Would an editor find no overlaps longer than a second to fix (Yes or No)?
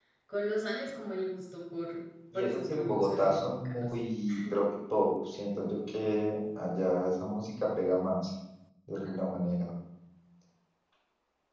No